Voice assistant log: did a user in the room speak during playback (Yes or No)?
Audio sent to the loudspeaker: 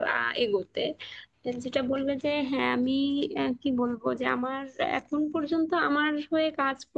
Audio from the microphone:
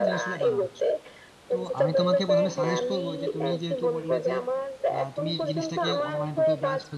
Yes